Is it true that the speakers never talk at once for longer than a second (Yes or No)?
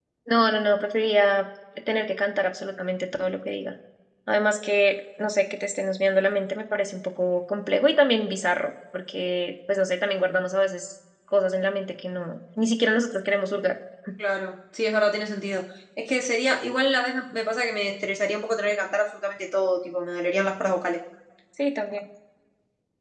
Yes